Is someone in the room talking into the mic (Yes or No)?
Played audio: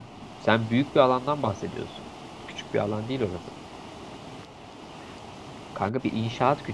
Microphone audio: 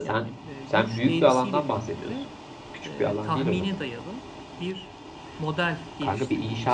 Yes